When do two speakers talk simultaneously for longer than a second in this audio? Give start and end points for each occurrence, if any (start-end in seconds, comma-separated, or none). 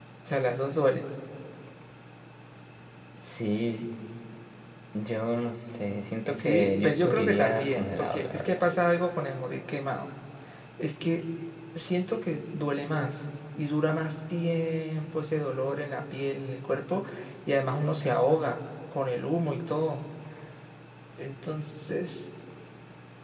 6.4-8.6